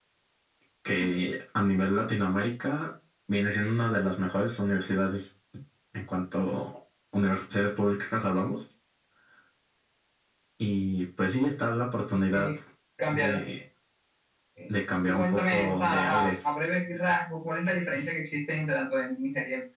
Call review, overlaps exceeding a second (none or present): present